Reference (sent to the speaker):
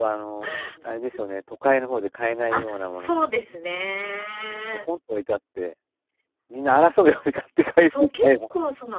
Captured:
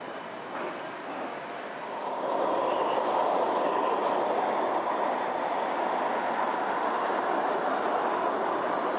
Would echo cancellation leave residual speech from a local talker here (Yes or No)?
No